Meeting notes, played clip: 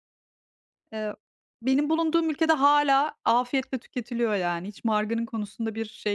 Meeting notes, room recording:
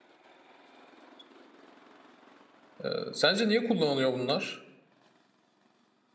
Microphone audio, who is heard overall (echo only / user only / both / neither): user only